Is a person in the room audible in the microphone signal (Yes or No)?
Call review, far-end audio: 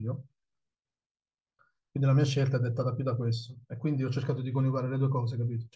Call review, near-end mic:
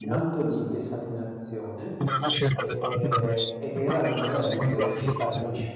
Yes